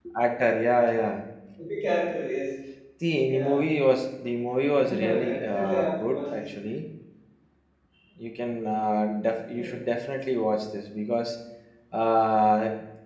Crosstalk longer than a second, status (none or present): present